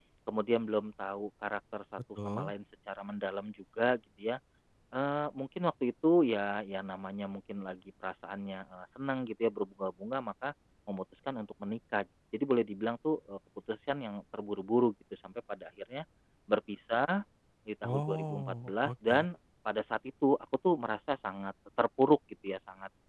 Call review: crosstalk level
present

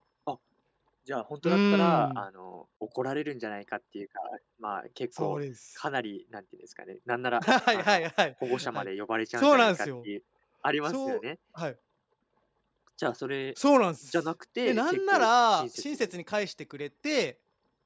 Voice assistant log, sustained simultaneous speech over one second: present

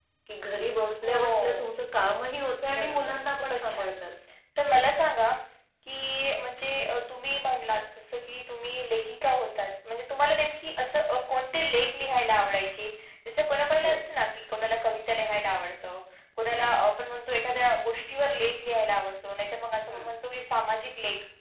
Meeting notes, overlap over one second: present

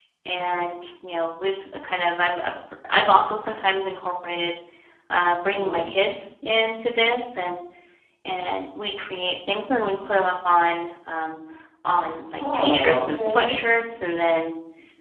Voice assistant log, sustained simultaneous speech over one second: present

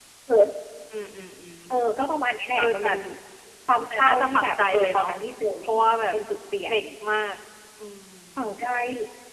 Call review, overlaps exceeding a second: present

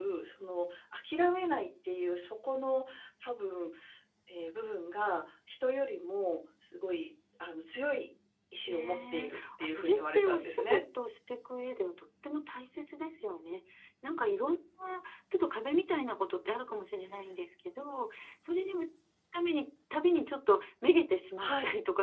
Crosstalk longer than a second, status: present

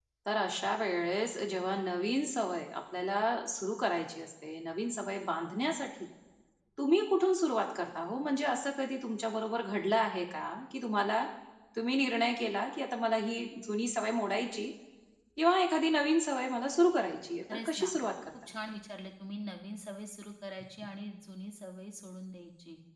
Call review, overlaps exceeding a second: none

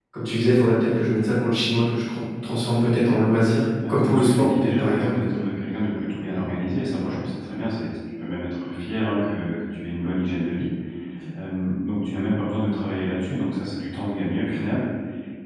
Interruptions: present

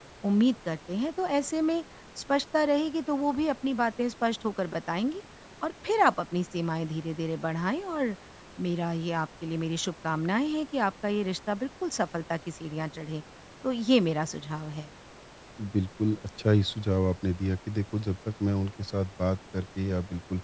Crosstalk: none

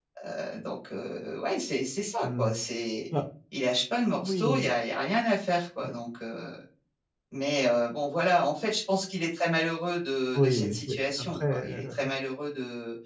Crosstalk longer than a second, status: present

